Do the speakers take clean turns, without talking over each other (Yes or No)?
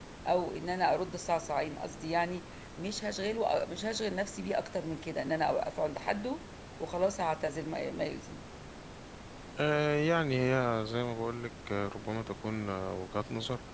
Yes